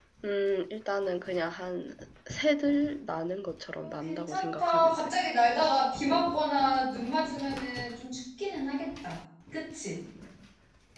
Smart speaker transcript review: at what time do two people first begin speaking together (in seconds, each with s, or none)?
3.8 s